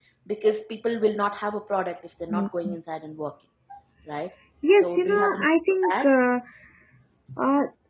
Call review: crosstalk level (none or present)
present